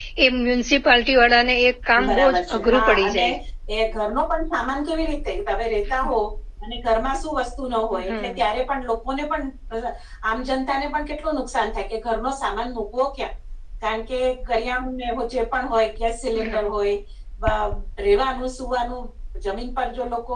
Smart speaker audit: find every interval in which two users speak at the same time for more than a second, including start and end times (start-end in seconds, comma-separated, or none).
2.1-3.3